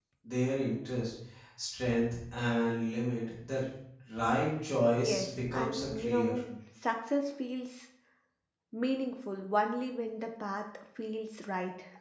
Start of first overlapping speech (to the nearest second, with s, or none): 5 s